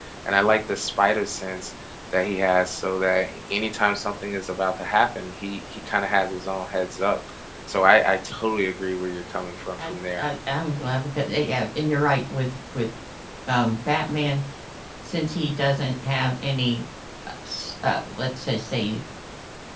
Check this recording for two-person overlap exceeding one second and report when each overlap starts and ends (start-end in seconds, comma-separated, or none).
none